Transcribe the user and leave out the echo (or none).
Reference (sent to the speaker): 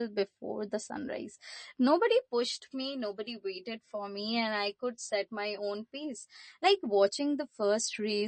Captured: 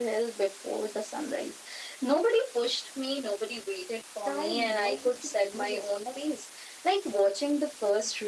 tied not just to places but